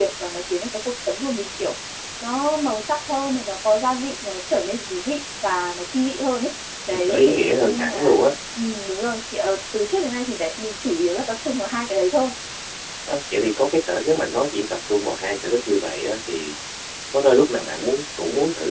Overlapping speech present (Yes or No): Yes